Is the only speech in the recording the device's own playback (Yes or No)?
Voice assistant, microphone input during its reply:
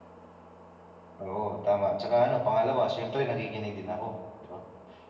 Yes